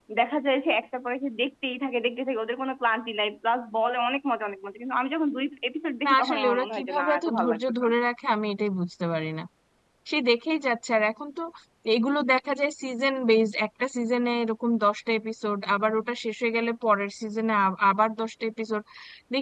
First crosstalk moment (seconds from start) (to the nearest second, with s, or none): 6 s